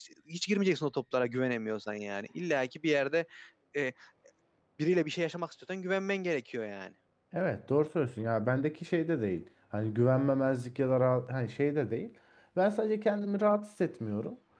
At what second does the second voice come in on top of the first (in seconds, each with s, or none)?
none